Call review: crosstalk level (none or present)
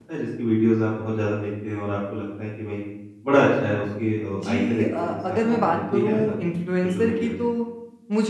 present